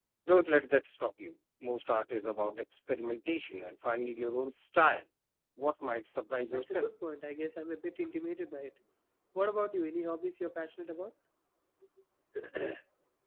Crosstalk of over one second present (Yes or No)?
No